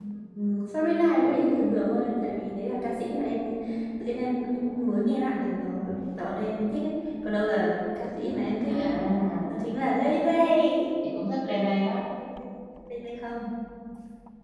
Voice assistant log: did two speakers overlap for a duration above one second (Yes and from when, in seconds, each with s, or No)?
No